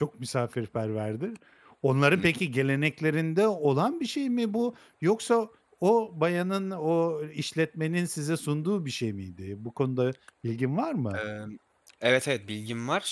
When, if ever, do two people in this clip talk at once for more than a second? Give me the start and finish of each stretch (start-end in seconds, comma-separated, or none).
none